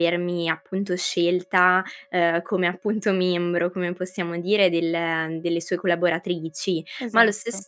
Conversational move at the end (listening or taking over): listening